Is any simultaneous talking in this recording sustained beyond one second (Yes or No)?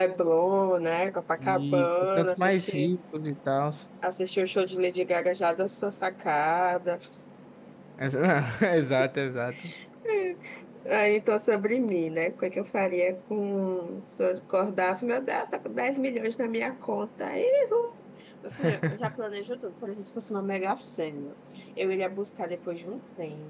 Yes